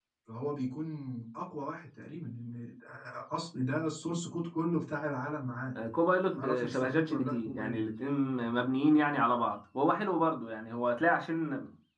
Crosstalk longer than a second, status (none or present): present